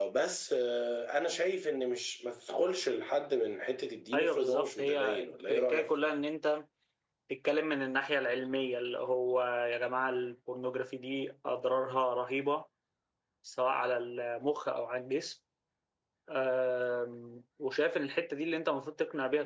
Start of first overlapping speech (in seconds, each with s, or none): 4.1 s